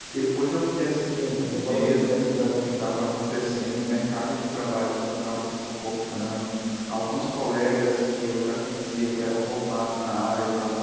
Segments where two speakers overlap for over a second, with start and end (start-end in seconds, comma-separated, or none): 1.1-2.7